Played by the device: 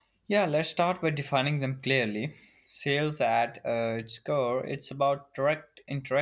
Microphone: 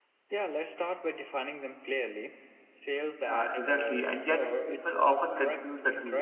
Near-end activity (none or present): present